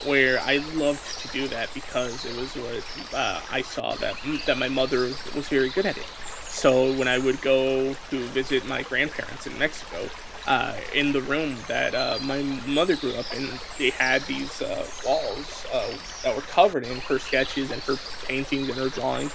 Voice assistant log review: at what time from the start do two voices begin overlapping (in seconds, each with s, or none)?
none